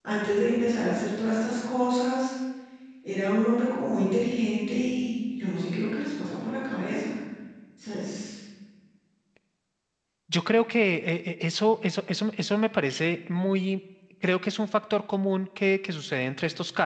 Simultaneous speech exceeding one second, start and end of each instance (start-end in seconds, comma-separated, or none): none